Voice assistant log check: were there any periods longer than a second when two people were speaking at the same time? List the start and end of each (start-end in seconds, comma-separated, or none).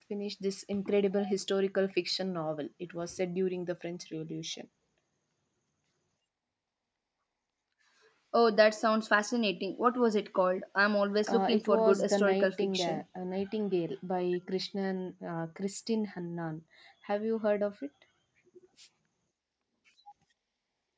11.3-13.0